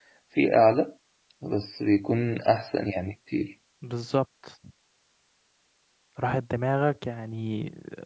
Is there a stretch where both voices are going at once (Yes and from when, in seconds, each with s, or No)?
No